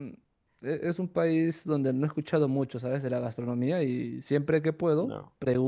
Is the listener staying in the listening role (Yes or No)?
Yes